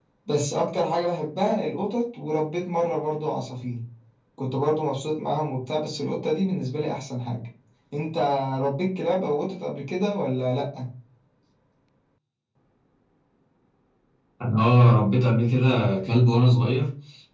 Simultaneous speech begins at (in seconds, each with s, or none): none